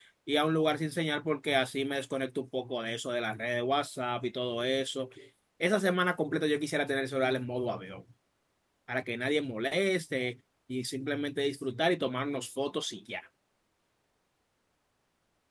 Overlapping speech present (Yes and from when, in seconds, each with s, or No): No